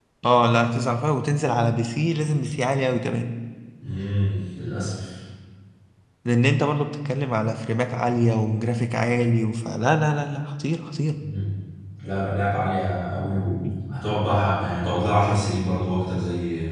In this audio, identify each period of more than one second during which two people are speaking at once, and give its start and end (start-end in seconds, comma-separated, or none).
none